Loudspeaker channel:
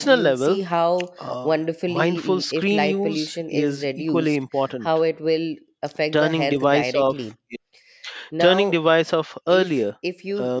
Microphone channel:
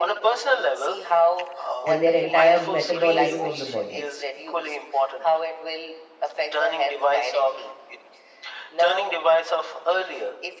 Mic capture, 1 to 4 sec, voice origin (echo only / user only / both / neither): both